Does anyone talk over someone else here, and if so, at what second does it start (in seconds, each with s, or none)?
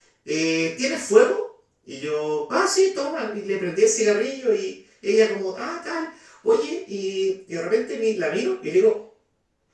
none